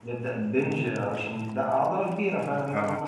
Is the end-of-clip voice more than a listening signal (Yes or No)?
No